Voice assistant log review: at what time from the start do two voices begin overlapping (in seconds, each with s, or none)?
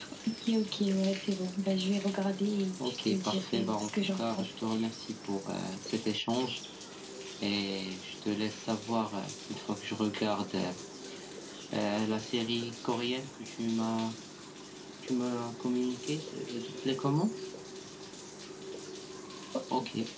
2.8 s